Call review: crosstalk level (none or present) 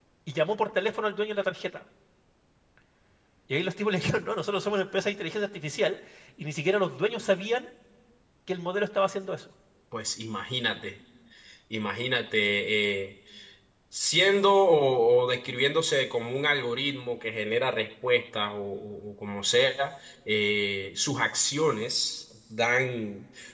none